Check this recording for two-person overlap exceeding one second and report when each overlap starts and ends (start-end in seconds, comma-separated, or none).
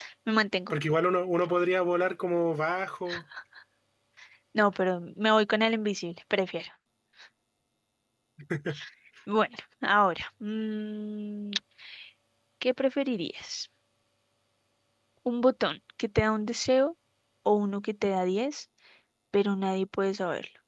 none